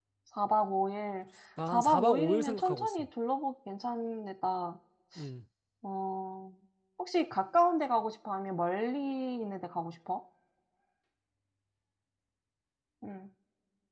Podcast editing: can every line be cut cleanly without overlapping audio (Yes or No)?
No